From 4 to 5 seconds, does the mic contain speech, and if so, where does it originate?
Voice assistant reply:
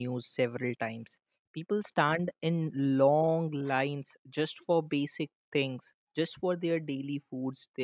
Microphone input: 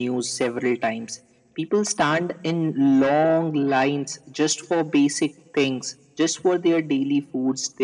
echo only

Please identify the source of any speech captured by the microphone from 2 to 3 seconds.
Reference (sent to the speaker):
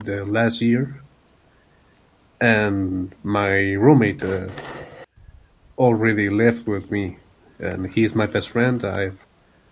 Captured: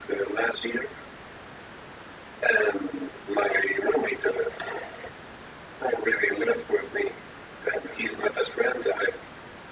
echo only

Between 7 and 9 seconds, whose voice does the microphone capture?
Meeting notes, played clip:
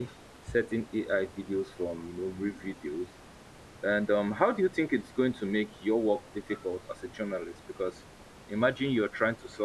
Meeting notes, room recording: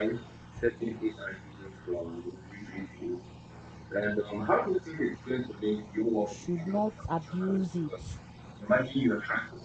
both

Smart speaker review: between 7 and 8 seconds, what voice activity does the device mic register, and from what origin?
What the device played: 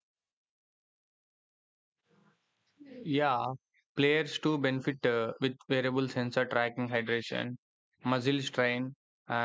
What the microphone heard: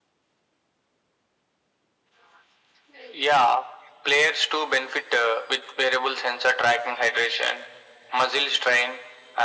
echo only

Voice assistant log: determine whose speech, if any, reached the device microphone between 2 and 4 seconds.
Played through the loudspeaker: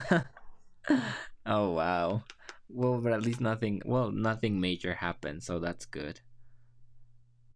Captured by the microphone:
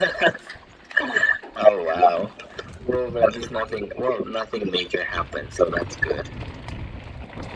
echo only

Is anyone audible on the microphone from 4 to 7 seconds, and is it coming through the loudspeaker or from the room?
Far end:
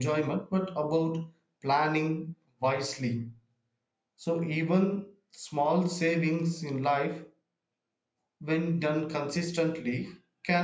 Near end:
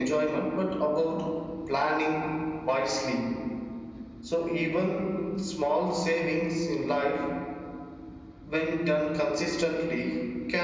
echo only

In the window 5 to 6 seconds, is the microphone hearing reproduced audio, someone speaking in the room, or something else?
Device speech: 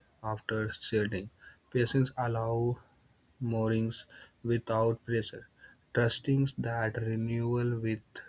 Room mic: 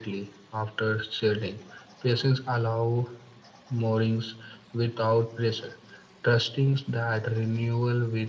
echo only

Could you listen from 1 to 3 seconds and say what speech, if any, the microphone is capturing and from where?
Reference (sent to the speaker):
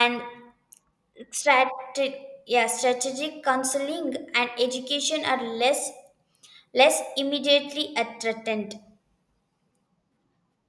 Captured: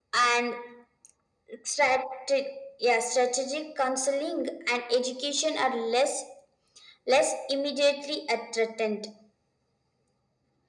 echo only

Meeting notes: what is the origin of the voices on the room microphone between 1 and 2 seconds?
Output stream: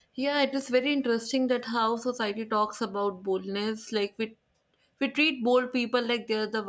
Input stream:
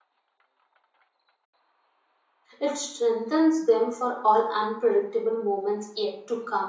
neither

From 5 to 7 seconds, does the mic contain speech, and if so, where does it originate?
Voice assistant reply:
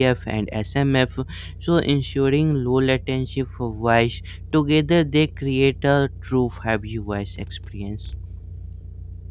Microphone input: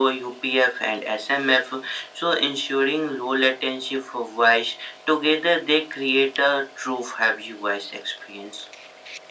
echo only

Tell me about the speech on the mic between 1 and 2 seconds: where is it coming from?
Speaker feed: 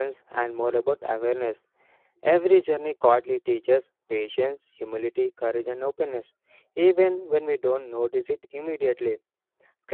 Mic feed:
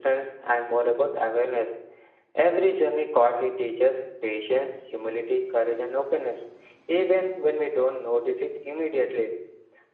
echo only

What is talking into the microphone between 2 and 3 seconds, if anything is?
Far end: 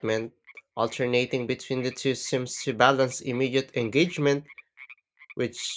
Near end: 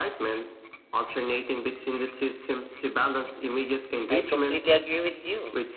echo only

